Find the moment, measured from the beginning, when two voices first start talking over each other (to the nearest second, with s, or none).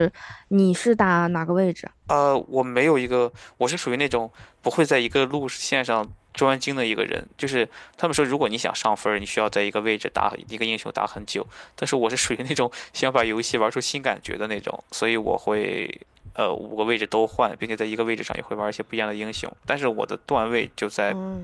none